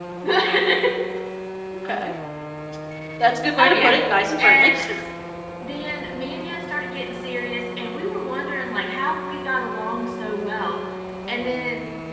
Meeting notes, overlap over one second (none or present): none